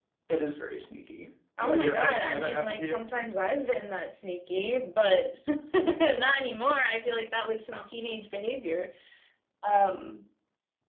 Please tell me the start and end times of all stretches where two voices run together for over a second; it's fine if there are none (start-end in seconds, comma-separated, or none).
1.6-3.0